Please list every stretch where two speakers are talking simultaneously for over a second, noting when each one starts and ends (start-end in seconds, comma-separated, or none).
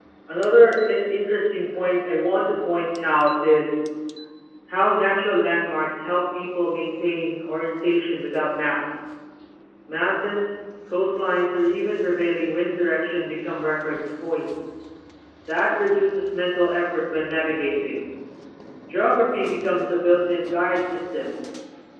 none